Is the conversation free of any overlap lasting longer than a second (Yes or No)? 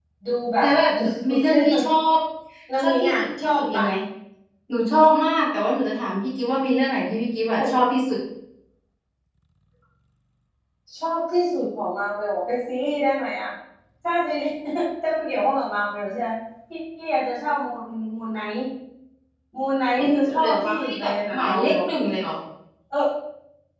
No